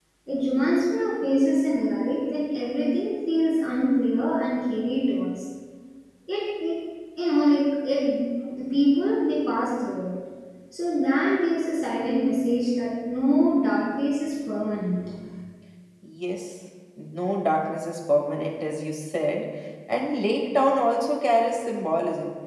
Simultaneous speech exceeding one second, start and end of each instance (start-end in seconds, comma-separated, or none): none